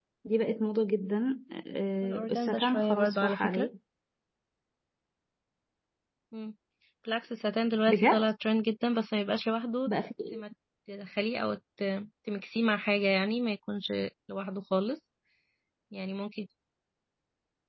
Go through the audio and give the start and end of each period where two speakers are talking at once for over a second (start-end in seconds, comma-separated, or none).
2.0-3.7